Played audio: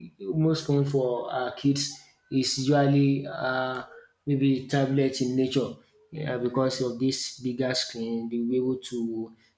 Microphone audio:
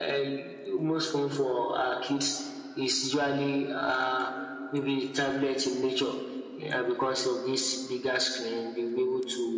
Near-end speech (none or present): none